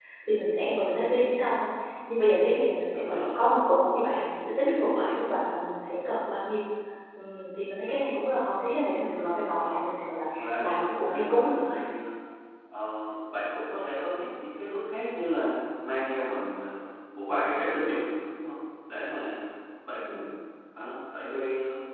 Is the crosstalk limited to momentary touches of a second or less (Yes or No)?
No